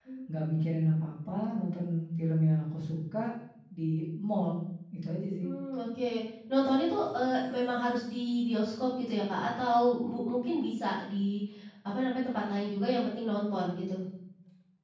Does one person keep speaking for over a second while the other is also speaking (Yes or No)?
No